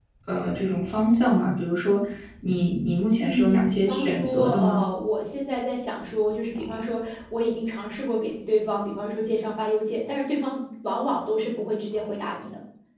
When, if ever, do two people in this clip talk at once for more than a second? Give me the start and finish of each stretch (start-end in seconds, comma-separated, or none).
3.2-4.8